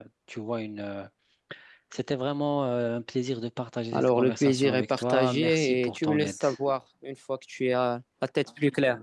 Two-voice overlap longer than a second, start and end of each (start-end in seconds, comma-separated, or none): 3.9-6.4